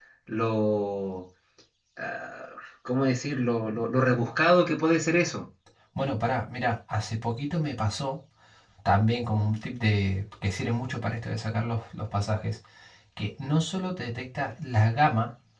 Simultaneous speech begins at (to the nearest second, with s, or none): none